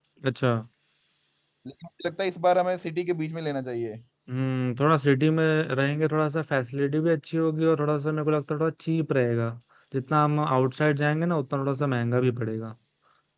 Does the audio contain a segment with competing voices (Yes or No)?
No